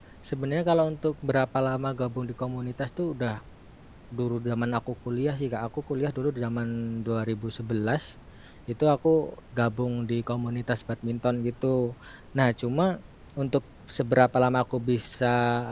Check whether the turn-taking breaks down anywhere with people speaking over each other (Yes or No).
No